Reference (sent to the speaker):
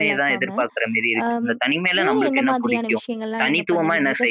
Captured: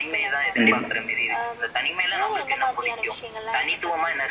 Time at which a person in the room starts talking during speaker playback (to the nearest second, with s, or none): 1 s